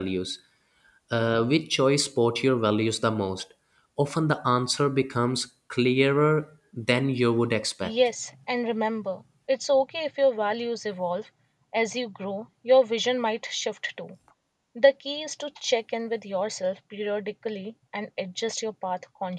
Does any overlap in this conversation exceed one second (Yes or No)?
No